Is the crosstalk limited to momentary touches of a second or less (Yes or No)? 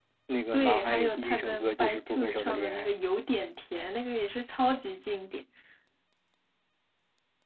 No